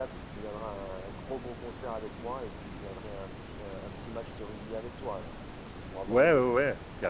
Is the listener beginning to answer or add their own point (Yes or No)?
Yes